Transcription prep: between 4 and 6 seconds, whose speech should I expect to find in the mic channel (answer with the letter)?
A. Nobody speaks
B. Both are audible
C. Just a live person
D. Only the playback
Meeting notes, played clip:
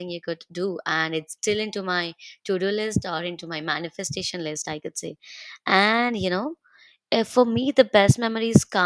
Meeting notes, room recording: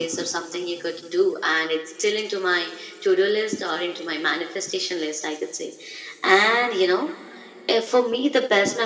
D